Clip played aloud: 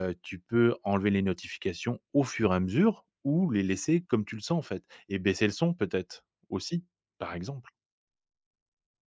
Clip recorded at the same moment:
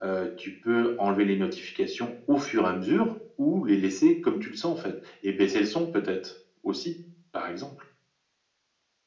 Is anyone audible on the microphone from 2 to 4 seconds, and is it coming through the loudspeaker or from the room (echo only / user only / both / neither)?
echo only